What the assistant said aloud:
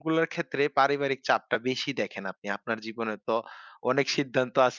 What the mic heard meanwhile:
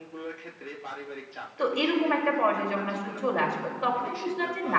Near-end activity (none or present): present